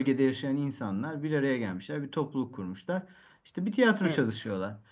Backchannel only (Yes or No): Yes